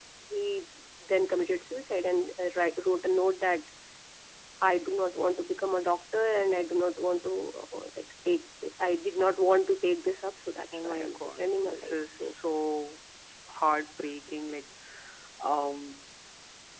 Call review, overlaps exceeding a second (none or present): present